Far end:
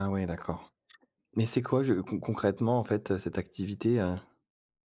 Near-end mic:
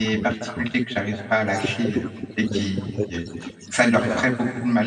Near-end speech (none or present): present